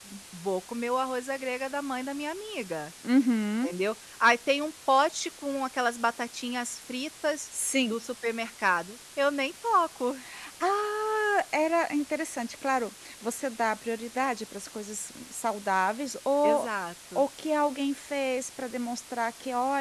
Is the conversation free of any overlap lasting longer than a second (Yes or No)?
Yes